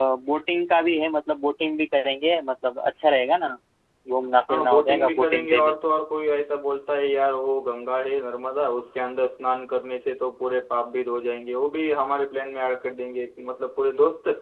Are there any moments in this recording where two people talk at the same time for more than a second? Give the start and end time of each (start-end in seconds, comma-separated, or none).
4.5-5.7